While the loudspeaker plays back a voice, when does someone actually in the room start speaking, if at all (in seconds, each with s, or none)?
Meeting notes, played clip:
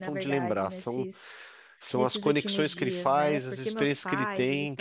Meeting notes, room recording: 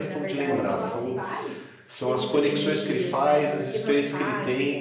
0.5 s